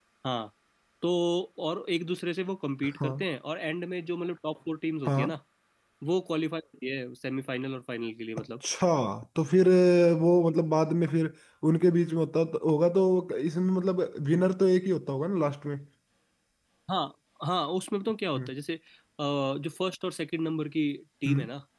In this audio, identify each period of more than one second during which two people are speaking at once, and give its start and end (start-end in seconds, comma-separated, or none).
none